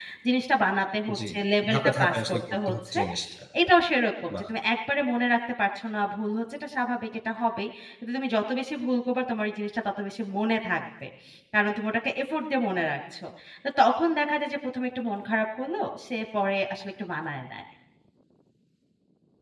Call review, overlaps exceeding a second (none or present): present